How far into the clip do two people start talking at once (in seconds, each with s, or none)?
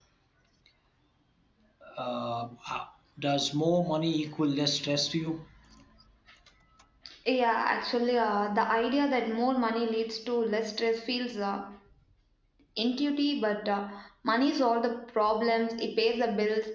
none